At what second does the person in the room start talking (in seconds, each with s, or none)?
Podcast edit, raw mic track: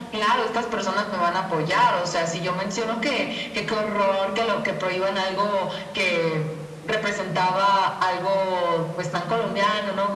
none